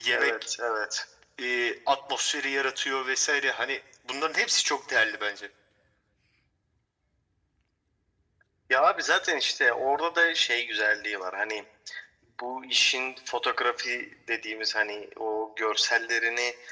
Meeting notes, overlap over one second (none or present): none